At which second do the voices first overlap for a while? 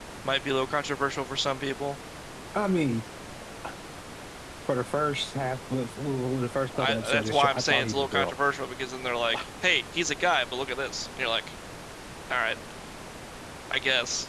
6.7 s

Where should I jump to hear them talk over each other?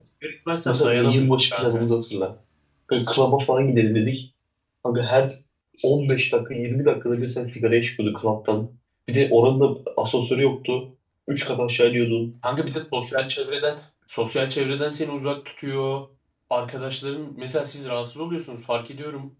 0.7 s

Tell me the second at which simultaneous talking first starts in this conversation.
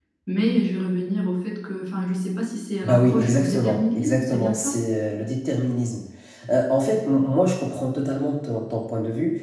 2.8 s

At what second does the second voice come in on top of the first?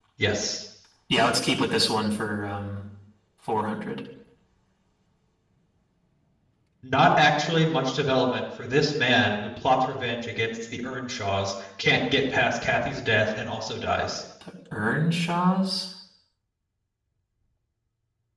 none

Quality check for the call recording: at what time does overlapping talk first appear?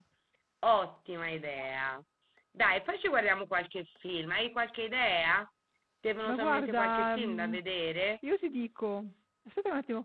6.3 s

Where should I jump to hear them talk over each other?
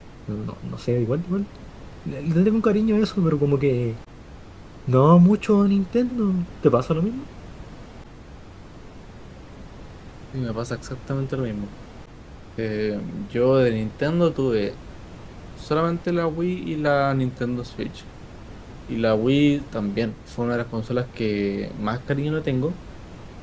none

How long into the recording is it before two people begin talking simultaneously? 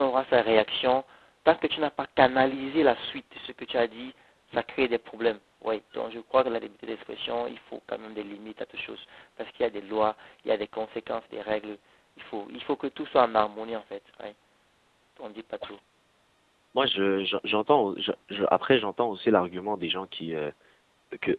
none

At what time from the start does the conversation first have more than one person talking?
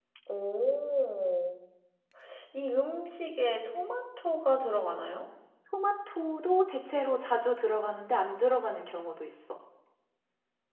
none

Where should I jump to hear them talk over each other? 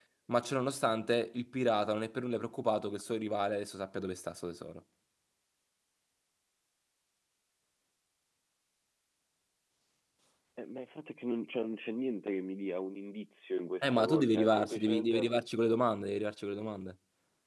13.8 s

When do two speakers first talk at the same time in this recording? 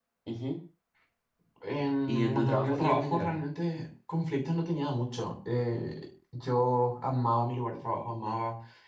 2.1 s

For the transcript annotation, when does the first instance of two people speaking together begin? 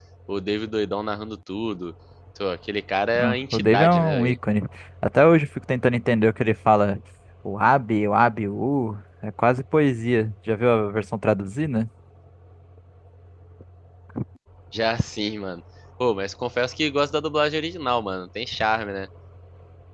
3.1 s

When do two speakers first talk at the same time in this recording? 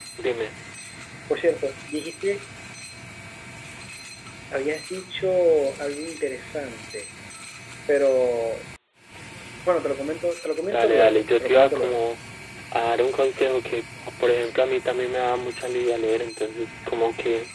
10.7 s

